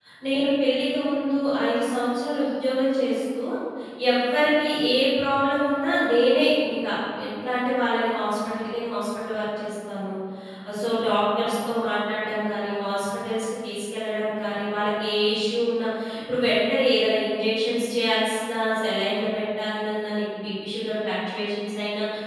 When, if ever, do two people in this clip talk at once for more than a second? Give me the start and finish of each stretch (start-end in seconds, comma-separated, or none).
none